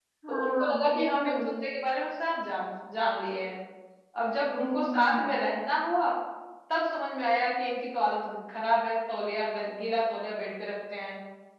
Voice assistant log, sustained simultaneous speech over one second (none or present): present